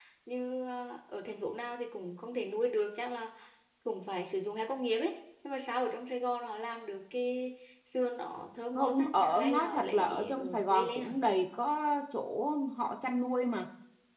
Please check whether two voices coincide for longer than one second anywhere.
Yes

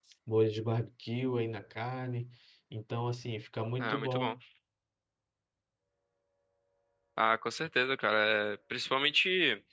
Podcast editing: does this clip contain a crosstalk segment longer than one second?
No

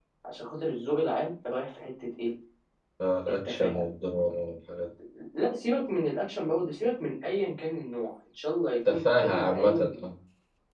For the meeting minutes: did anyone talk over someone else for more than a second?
Yes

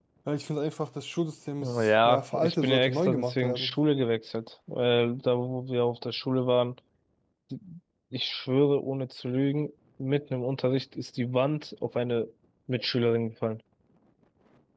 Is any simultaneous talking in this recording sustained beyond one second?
Yes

